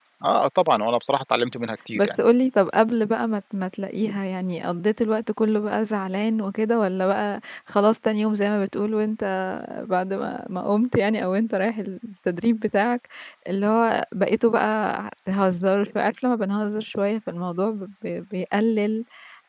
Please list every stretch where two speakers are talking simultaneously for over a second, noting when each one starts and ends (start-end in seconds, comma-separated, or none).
none